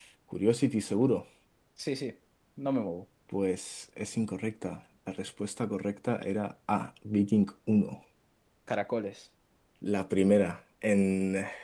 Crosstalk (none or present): none